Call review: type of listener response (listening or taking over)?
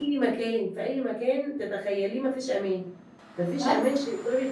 listening